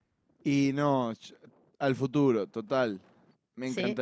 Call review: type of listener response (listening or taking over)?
listening